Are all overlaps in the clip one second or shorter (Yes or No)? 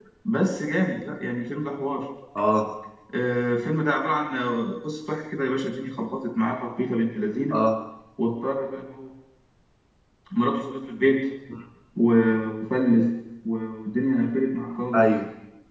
Yes